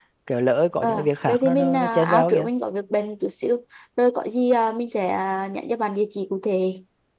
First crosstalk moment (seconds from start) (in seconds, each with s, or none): 0.8 s